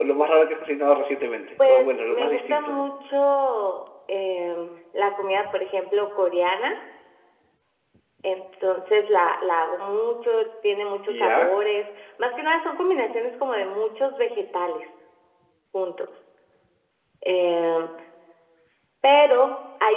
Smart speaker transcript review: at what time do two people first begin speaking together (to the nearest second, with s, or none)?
2 s